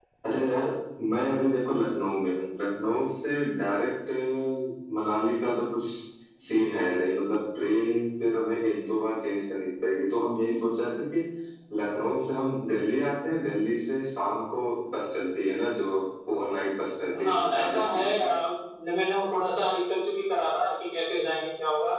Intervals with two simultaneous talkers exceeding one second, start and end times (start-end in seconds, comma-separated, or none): 17.2-18.4